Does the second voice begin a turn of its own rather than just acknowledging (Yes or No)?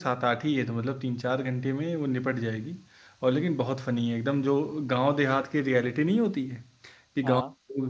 No